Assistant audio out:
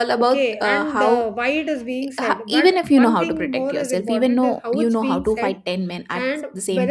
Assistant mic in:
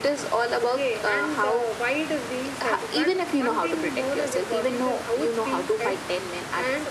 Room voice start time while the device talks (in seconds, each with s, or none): none